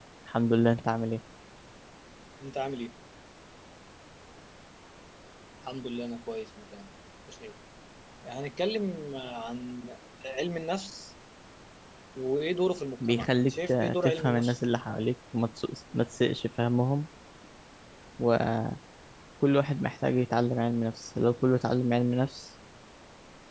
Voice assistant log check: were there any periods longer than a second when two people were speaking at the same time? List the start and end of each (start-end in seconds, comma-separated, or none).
13.1-15.0